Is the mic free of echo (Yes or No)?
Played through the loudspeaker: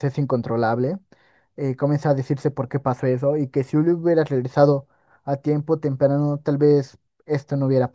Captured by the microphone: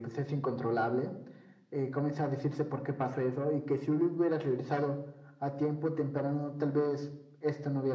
No